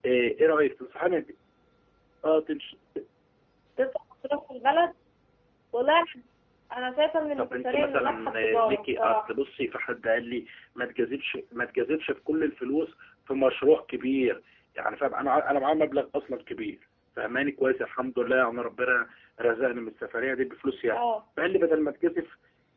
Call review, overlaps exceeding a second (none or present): present